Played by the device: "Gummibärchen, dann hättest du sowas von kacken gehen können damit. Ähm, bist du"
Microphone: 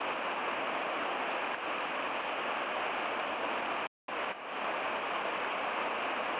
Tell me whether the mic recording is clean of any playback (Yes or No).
Yes